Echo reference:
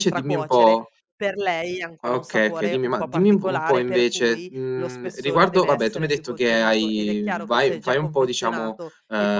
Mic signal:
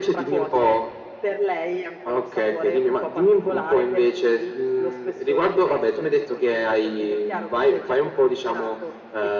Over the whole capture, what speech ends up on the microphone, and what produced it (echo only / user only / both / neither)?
echo only